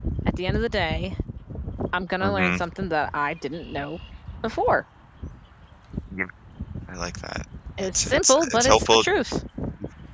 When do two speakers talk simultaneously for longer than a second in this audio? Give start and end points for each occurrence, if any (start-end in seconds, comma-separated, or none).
7.8-9.0